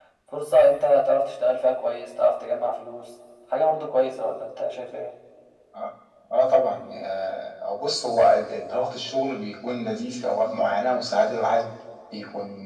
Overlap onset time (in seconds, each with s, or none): none